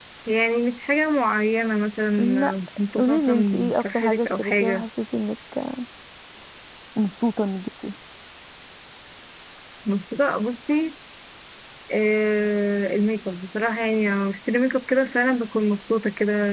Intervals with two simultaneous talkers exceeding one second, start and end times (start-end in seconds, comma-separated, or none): 3.0-4.8